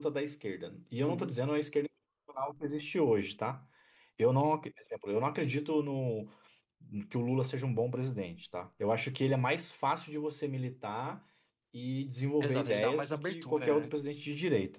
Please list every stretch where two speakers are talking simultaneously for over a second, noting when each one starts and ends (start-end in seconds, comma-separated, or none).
12.4-13.9